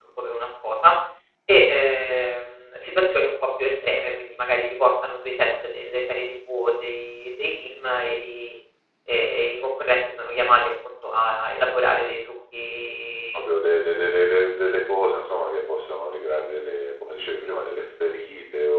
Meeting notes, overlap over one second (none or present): none